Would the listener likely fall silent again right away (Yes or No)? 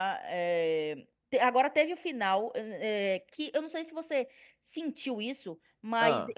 Yes